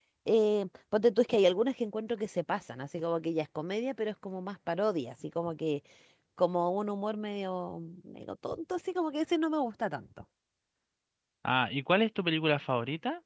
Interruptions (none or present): none